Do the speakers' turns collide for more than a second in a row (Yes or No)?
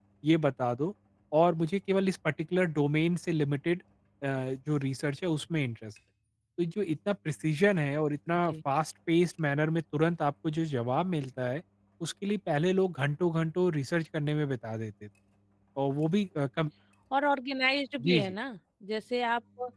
No